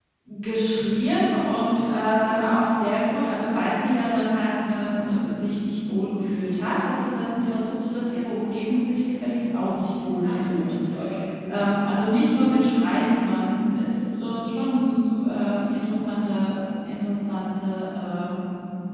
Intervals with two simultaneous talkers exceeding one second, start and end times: none

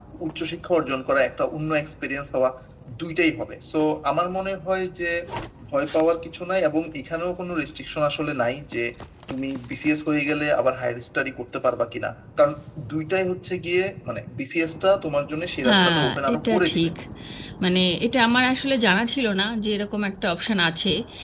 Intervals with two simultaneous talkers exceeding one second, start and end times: 15.7-16.9

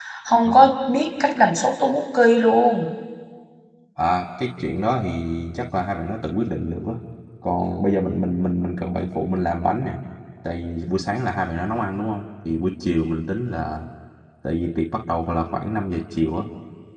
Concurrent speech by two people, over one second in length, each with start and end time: none

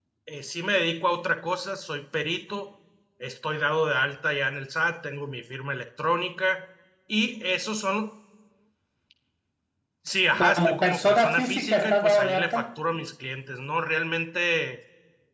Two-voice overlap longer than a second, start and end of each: 10.6-12.6

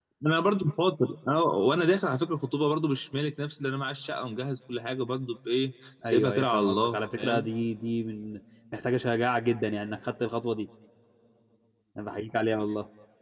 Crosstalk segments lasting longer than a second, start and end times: 6.1-7.5

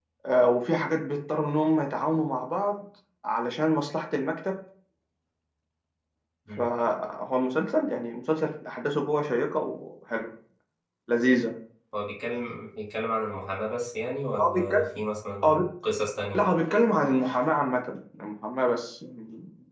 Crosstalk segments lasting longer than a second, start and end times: none

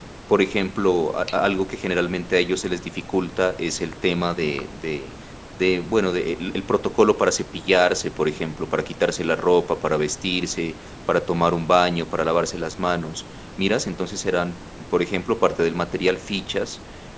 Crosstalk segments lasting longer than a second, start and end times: none

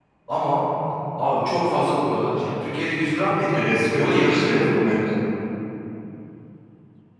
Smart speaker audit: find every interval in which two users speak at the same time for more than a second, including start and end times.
3.5-5.0

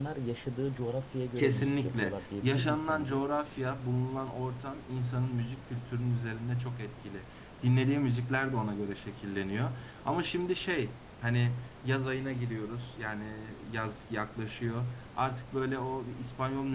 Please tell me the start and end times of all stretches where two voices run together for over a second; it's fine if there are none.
1.4-3.2

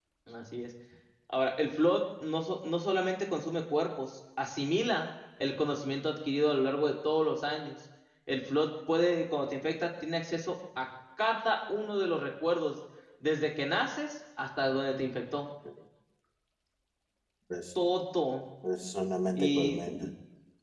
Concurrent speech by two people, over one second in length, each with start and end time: none

